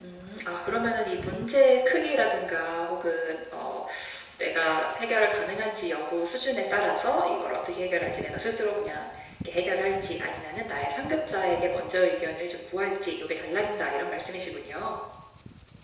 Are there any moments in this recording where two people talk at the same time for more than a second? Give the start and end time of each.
none

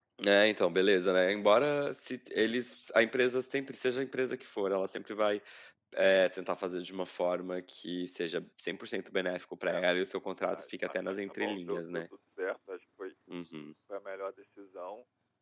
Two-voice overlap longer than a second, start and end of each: 10.4-12.0

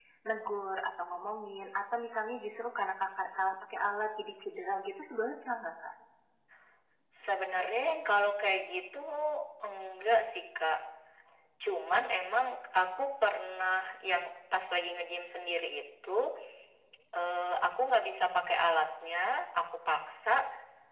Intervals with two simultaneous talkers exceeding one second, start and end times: none

